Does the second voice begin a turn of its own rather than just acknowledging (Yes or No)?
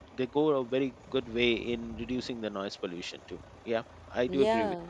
Yes